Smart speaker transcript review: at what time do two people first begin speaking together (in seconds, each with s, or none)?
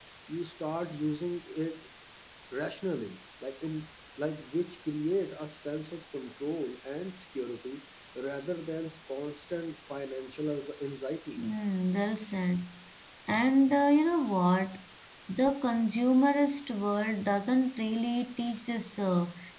none